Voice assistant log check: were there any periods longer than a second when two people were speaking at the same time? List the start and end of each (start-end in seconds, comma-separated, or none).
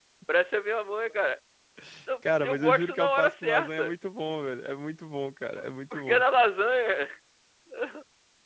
2.4-3.9